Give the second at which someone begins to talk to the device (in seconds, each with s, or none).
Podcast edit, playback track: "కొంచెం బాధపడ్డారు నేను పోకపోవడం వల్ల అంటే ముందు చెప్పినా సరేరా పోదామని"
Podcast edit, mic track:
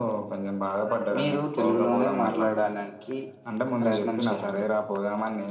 1.2 s